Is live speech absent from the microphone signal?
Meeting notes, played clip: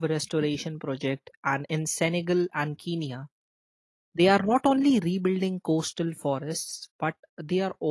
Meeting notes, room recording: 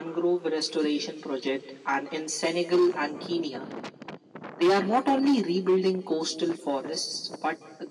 Yes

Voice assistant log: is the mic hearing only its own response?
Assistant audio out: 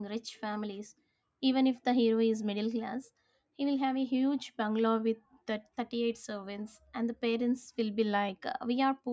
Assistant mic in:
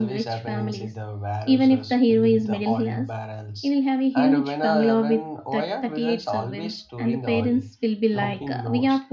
No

